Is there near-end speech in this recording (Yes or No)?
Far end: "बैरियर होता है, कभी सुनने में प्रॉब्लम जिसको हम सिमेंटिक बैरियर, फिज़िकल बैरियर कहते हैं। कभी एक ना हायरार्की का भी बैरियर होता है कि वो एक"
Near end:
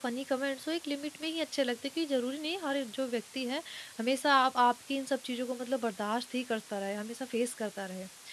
Yes